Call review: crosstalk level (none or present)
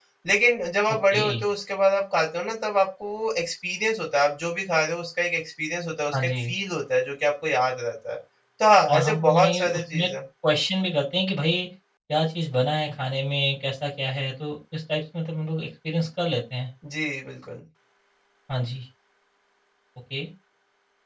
present